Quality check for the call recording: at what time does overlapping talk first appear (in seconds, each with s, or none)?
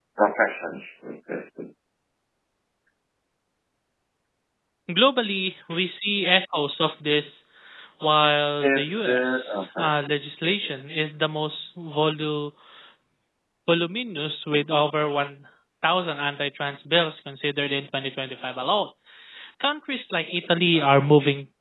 8.6 s